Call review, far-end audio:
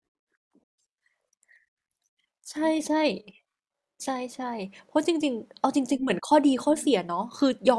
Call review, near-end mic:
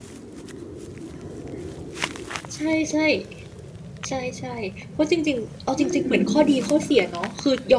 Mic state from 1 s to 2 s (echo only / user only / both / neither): neither